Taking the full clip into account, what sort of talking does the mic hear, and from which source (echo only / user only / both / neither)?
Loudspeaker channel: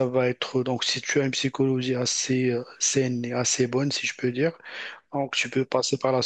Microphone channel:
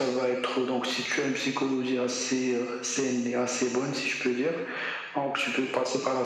echo only